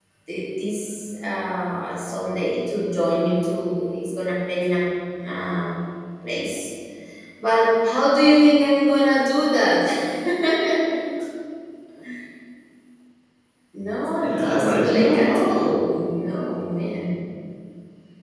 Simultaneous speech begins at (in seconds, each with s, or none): 14.2 s